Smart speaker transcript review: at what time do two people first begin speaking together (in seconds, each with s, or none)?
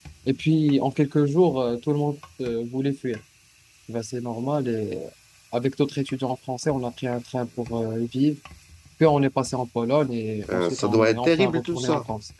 10.5 s